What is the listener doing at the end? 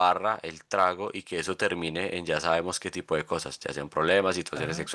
listening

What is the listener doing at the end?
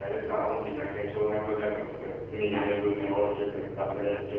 taking over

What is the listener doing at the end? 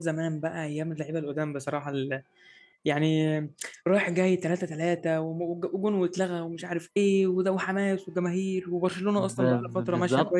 taking over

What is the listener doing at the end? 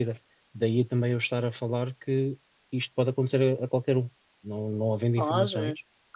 taking over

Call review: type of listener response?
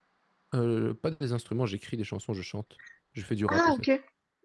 taking over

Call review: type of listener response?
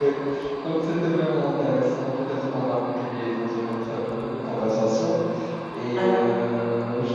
listening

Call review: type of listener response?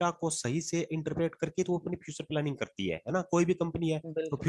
listening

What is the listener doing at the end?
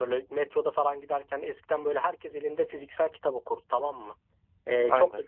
listening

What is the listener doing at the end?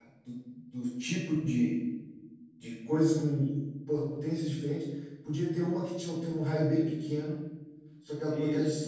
listening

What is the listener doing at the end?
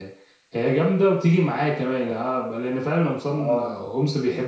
listening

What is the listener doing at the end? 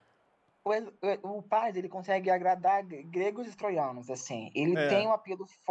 listening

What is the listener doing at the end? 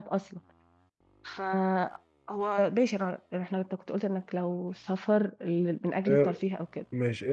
taking over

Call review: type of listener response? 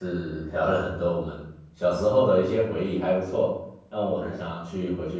listening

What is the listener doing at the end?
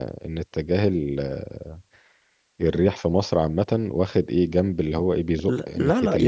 taking over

